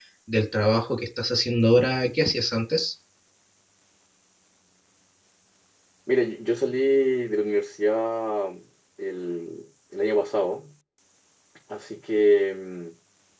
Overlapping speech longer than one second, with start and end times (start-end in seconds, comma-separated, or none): none